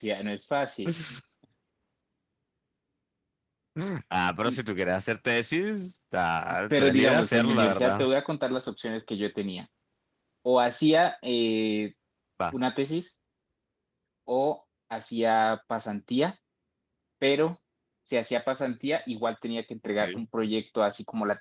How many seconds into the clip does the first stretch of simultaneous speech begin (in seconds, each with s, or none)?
6.7 s